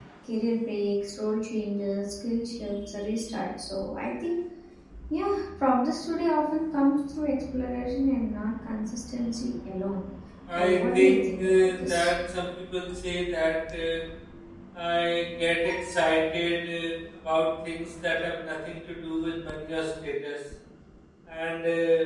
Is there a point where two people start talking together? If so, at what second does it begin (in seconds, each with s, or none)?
10.6 s